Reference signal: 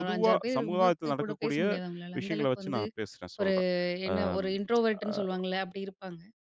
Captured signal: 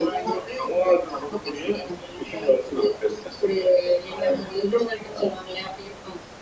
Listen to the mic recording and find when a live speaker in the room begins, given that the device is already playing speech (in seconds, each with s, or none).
none